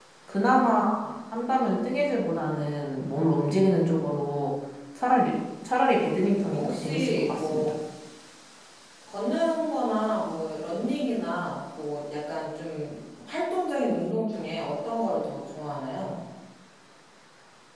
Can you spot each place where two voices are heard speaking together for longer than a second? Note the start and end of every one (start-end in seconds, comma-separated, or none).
6.5-7.7